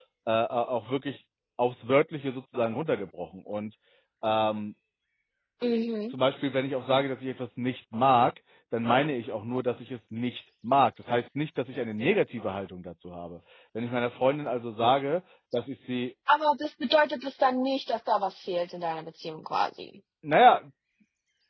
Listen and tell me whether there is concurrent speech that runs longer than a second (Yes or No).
No